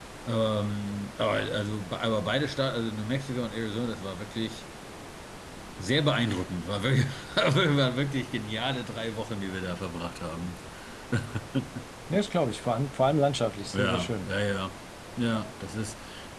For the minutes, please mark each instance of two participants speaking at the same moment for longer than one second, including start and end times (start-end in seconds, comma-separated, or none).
none